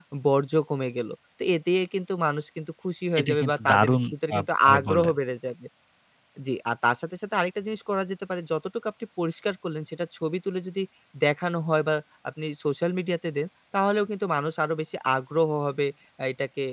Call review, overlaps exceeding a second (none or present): present